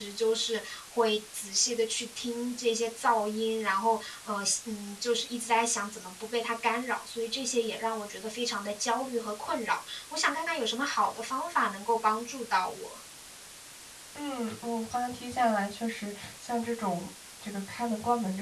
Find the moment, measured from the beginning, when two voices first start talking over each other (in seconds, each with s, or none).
none